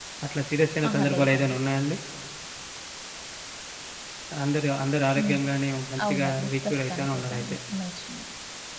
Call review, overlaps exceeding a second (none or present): present